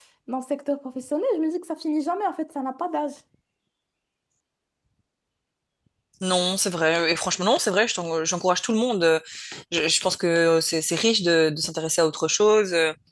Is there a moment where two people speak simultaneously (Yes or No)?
No